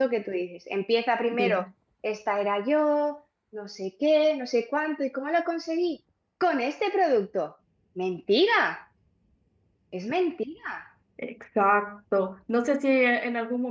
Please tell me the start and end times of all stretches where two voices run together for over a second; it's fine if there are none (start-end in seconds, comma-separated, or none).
none